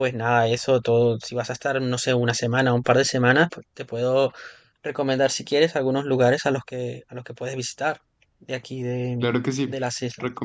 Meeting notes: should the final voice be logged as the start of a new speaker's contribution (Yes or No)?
Yes